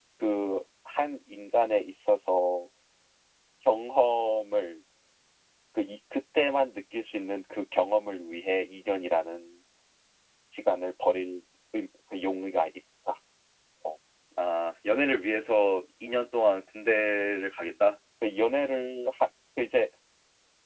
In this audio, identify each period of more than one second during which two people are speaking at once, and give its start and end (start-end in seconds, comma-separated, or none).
none